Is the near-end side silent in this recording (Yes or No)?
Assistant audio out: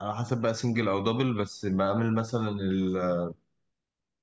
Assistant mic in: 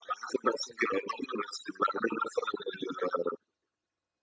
Yes